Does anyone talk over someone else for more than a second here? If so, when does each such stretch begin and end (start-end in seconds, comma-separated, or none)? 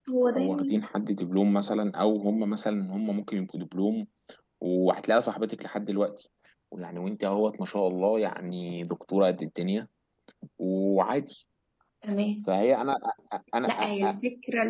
none